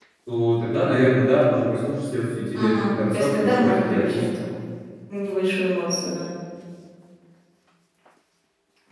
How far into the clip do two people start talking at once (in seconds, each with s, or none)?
2.5 s